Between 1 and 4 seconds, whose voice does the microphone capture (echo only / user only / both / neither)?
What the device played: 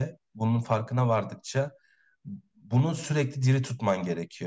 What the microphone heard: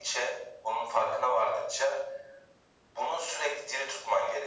echo only